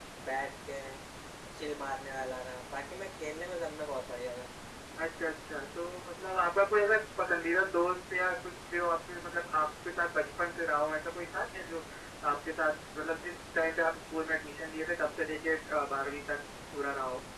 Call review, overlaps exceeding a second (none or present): none